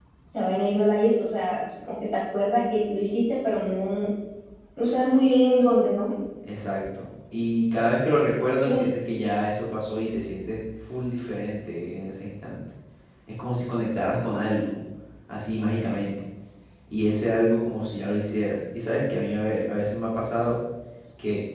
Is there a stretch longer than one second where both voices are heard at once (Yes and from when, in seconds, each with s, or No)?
No